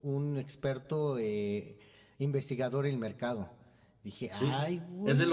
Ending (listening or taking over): taking over